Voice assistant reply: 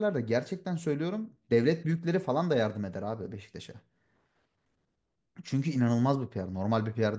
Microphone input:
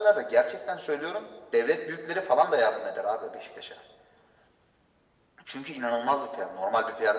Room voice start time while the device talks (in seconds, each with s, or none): none